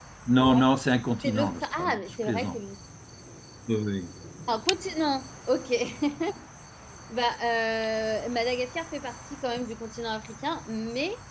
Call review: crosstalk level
present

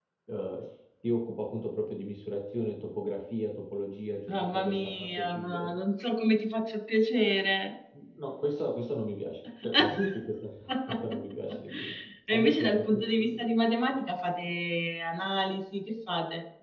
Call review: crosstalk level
present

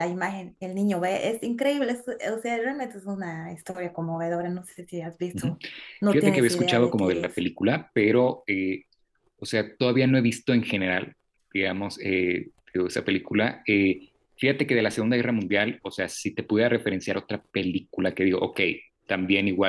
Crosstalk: present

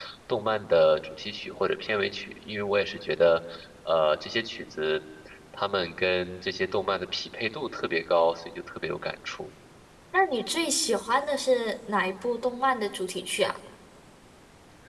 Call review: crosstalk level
none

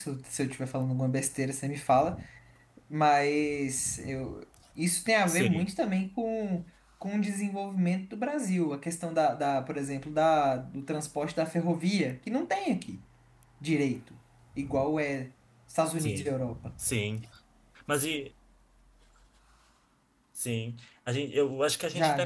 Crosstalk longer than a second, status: none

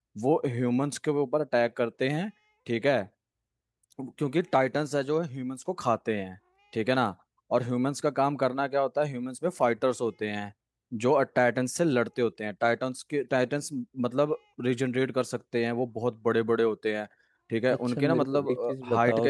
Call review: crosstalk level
present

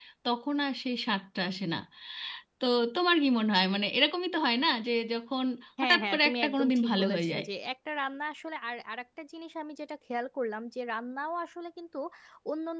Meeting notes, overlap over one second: present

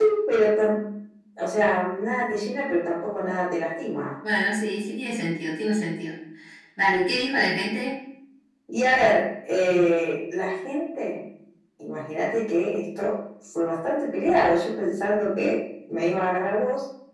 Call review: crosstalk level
none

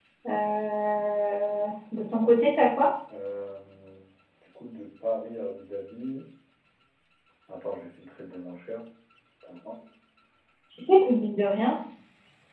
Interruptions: none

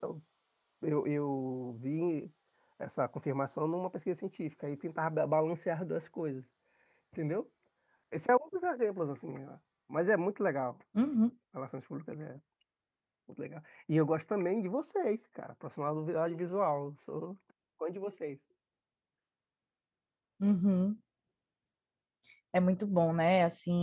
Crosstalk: none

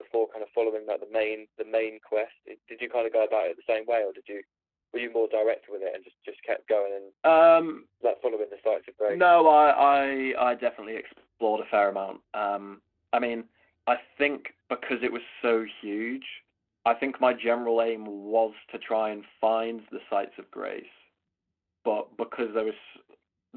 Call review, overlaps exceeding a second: none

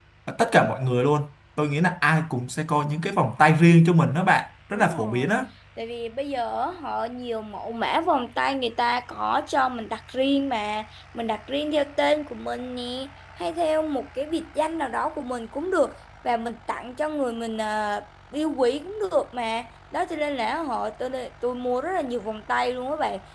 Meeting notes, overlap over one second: none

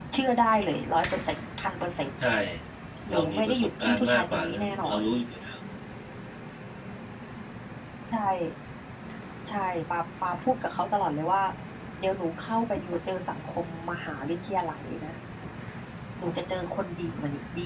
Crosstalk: present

